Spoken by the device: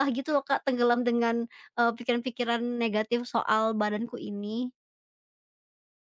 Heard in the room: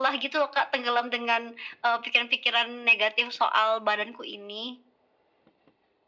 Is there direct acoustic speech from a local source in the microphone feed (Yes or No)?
No